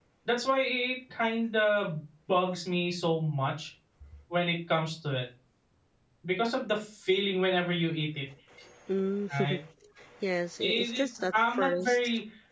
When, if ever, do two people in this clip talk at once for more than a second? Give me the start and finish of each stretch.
10.6-12.0

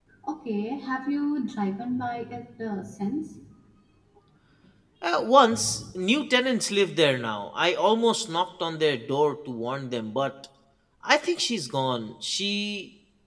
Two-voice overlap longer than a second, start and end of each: none

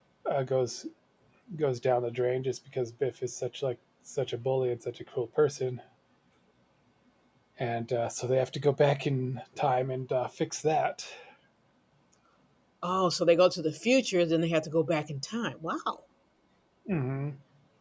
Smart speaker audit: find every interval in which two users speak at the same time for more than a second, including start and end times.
none

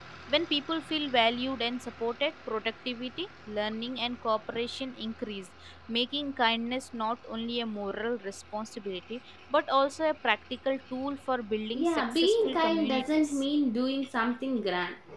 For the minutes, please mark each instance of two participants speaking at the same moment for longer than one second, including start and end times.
11.7-13.4

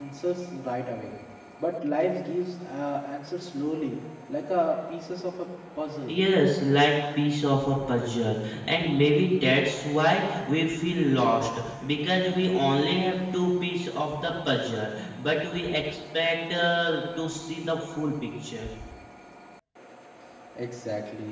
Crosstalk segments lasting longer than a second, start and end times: none

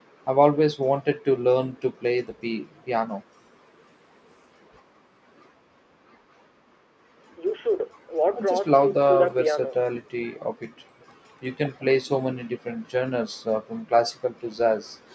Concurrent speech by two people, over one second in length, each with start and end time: 8.4-9.8

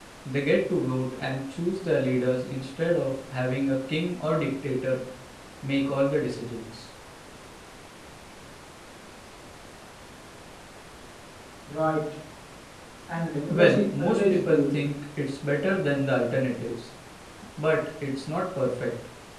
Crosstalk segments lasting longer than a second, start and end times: 13.5-14.8

